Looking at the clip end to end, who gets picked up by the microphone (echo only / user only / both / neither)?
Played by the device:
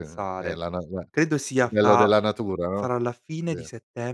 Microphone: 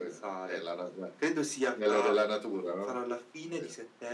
echo only